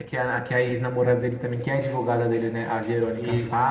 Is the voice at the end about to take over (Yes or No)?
No